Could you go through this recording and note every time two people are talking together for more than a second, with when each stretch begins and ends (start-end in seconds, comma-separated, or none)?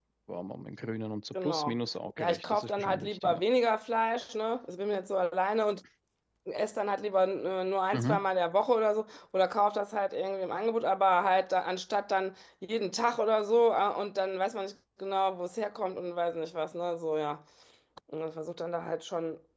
2.2-3.4